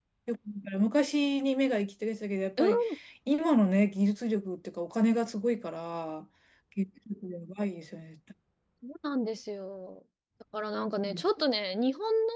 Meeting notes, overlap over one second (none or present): none